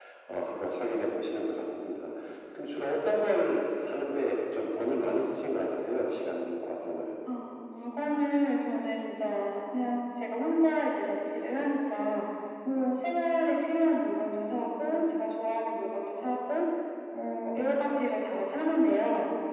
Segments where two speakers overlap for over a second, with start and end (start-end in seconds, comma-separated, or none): none